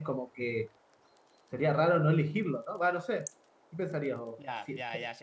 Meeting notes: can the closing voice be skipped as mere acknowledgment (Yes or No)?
No